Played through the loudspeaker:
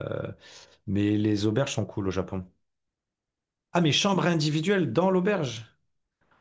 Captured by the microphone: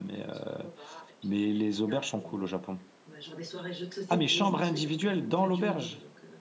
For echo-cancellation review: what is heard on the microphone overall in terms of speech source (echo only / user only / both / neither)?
both